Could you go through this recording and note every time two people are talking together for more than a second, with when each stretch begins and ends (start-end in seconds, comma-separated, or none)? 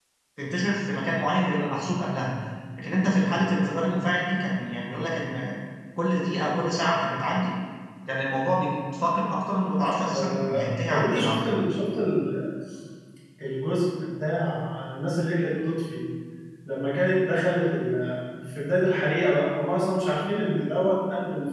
10.1-11.6